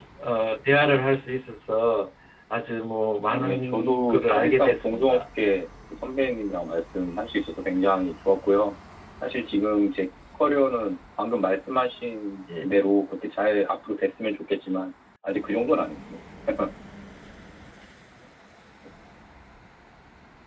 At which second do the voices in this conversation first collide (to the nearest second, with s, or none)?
3 s